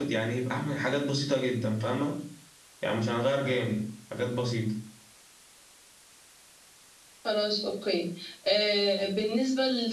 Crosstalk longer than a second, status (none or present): none